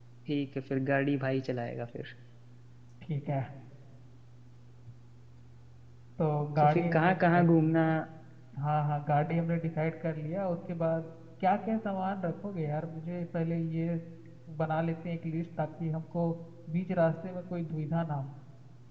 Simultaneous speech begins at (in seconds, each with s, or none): 6.6 s